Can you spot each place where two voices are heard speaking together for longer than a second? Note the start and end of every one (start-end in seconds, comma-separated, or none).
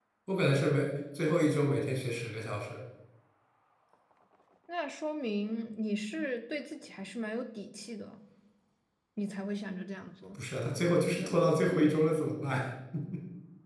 none